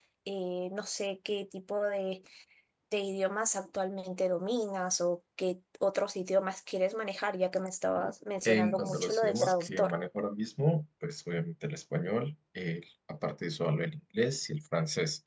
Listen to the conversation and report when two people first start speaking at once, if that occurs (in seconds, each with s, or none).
8.4 s